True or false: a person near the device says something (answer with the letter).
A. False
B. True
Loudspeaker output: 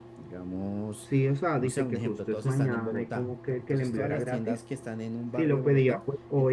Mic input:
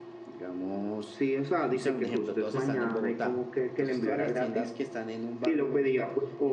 A